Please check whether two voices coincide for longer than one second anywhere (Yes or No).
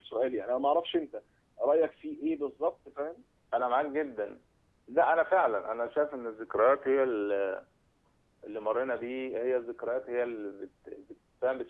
No